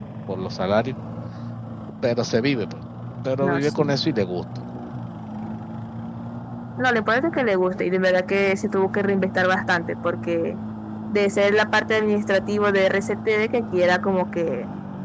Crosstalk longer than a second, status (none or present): none